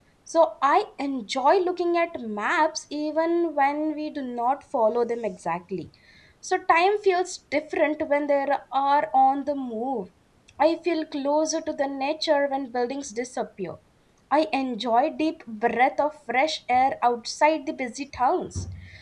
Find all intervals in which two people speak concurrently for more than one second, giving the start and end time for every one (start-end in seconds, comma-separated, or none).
none